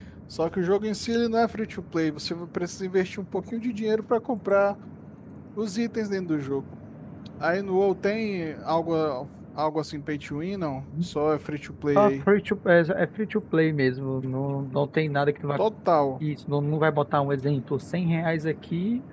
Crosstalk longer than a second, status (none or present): none